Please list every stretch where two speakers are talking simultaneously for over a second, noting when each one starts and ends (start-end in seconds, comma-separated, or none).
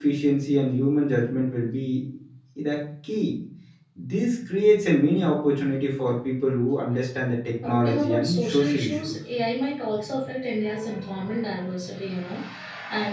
7.6-9.1